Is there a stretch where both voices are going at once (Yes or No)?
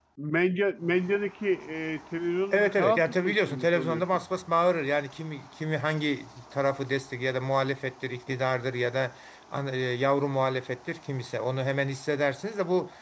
Yes